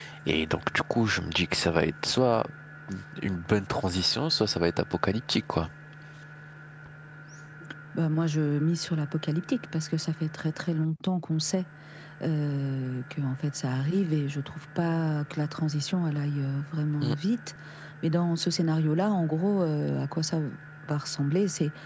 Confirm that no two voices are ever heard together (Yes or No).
Yes